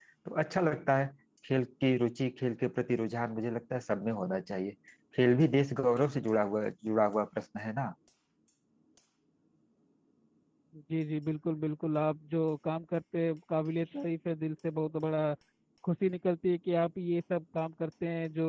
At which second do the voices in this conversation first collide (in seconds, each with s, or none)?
none